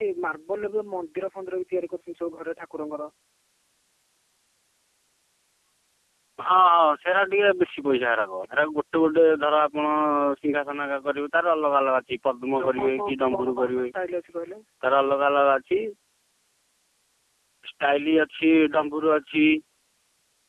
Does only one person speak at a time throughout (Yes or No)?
No